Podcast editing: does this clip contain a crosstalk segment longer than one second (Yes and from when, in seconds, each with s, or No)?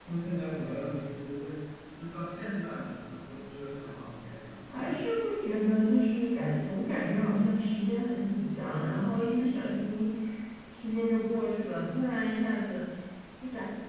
No